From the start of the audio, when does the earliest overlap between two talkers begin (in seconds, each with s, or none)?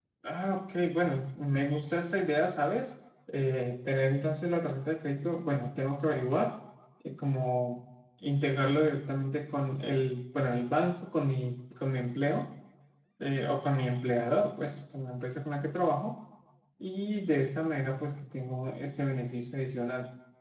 none